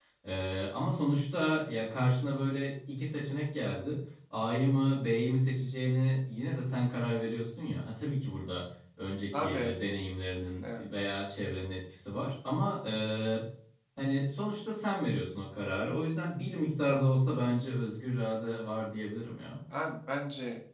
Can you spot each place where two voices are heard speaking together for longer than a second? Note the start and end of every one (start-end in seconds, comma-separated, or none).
none